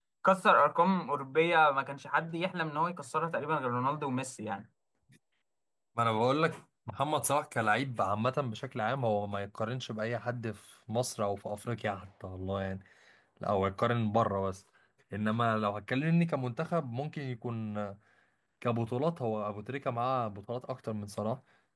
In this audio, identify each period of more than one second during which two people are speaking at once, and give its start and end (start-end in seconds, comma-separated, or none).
none